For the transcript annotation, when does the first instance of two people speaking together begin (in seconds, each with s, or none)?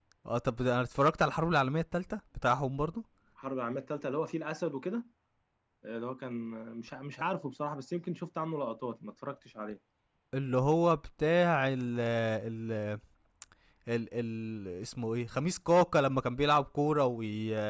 none